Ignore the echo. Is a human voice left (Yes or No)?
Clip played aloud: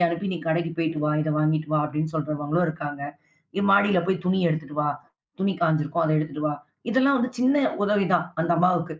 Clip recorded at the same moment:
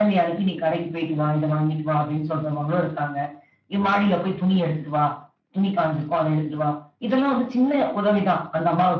No